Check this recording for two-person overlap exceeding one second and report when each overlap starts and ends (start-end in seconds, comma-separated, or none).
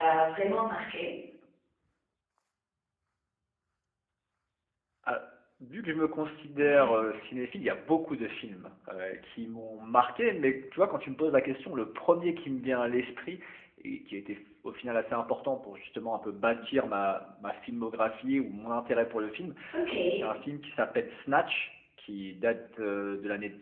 none